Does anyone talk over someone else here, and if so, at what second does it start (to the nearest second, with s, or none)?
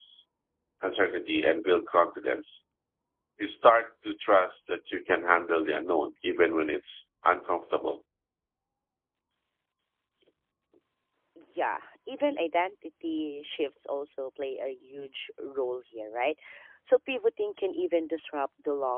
none